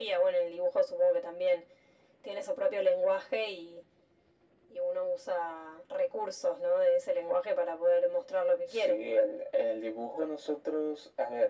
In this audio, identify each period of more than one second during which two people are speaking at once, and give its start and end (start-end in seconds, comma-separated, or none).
none